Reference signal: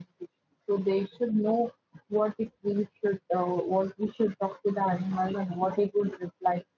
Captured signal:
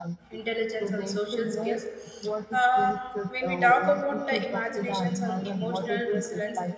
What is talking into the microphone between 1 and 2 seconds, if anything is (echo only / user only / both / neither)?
both